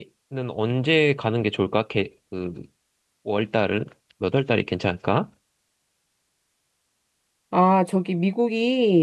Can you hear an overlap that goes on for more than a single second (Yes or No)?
No